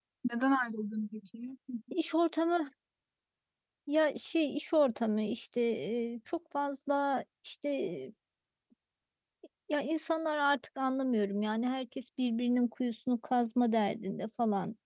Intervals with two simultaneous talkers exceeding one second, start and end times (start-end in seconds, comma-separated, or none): none